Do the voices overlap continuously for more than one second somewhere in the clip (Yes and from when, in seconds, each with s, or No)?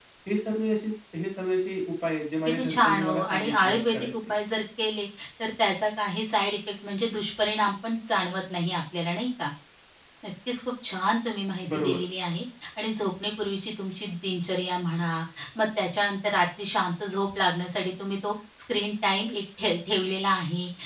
Yes, from 2.4 s